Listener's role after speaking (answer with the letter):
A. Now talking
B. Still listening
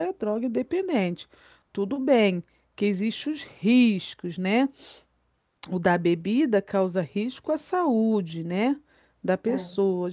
B